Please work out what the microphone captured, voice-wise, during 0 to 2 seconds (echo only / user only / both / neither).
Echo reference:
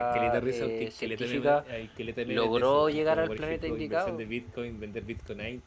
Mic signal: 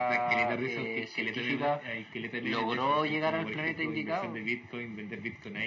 echo only